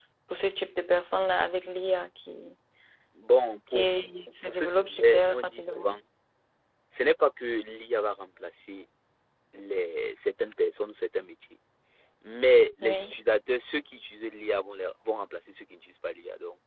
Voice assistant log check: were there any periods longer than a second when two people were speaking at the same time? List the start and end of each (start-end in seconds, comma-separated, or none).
4.5-6.0